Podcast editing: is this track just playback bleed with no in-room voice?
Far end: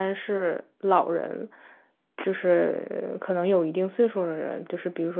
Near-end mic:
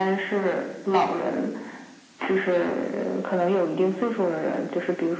Yes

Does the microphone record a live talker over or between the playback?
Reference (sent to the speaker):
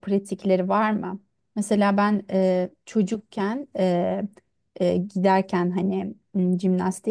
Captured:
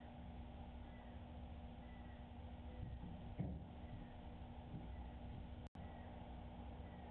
No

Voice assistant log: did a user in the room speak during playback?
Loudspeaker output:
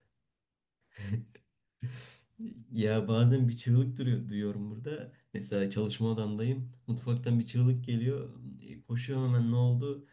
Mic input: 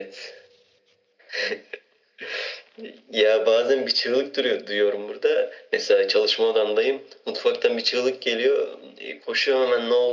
No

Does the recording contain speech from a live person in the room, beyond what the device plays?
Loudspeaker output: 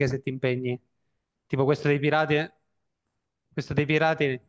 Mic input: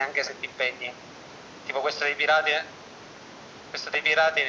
No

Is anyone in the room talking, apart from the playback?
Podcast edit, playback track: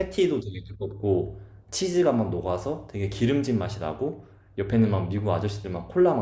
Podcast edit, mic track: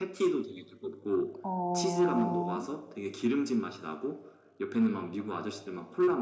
Yes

